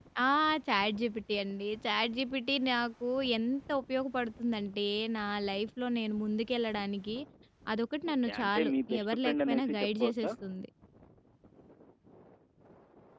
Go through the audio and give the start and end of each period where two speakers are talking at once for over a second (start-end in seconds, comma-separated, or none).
8.1-10.3